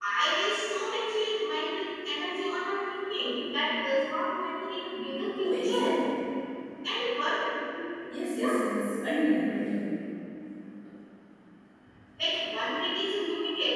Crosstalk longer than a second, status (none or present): none